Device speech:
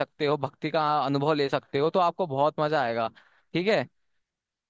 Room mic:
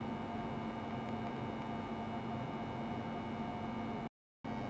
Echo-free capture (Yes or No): Yes